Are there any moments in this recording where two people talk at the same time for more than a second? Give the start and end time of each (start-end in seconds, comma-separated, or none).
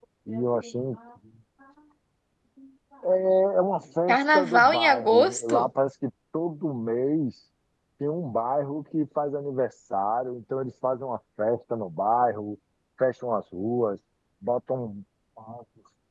4.1-5.7